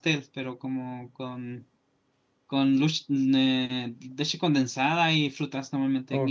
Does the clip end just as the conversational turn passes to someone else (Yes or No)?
Yes